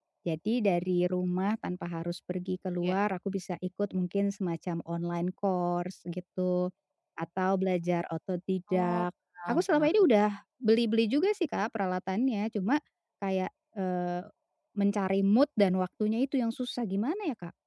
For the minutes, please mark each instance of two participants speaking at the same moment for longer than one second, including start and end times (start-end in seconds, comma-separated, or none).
none